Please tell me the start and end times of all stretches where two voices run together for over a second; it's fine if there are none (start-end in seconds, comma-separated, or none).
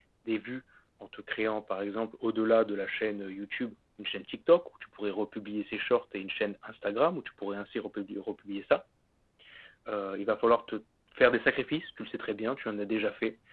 none